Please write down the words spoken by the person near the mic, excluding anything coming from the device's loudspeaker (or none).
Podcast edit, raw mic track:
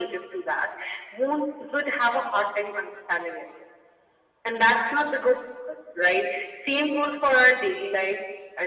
none